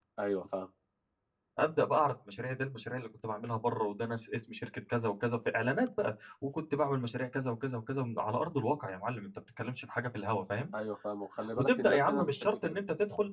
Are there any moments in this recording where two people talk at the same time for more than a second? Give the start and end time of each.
11.6-12.8

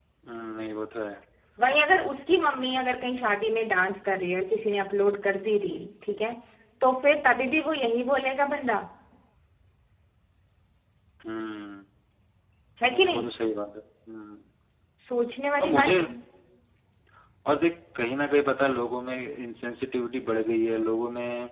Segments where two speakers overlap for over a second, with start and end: none

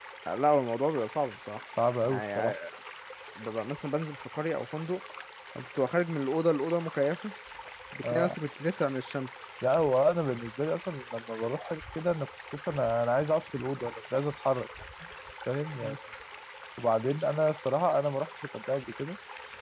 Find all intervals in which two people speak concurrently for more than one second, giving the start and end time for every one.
none

